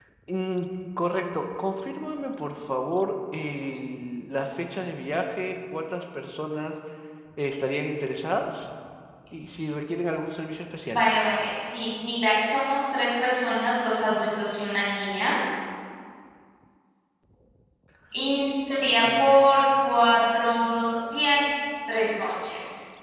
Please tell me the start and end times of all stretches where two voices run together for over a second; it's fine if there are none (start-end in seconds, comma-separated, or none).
none